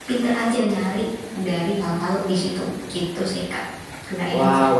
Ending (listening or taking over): taking over